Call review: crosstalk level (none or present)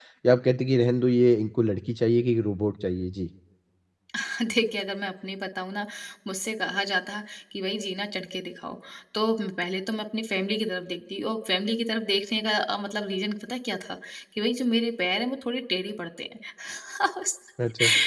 none